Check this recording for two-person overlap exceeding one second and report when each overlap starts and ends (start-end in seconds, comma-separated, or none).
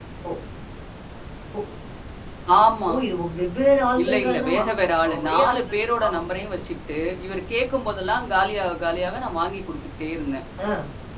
4.0-6.4